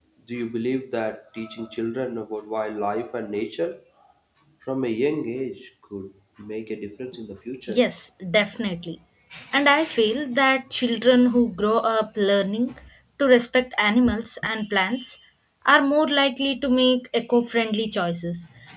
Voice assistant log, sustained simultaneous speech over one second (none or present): none